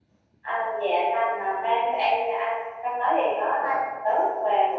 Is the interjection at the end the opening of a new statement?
No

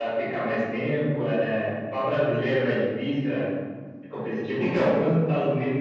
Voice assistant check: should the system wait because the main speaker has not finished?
Yes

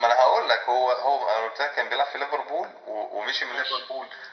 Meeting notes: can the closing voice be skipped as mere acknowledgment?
Yes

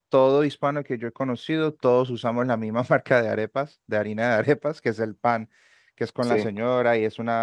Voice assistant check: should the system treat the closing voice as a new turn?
No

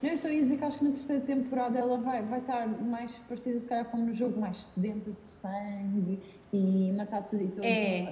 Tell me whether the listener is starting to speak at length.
Yes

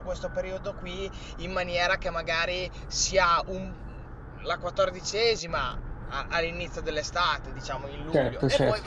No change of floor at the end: Yes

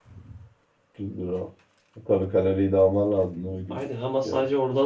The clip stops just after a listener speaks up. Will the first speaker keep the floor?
No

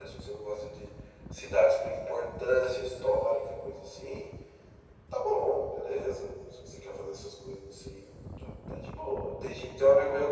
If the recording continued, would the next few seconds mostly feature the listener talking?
No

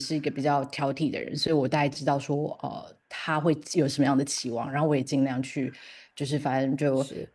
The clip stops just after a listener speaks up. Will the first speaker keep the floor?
Yes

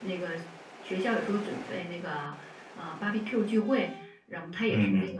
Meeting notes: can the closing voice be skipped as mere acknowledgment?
Yes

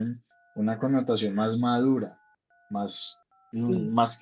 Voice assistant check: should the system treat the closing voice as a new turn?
No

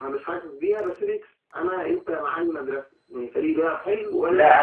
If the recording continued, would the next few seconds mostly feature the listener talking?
Yes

